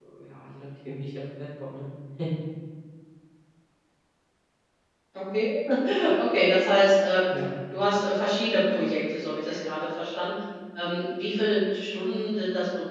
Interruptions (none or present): none